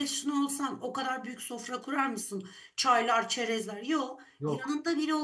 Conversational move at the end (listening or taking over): listening